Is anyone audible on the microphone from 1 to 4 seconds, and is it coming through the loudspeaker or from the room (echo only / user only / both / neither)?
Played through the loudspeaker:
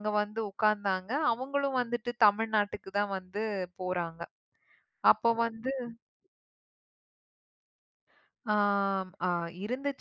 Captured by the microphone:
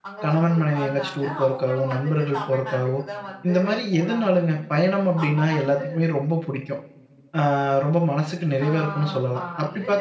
both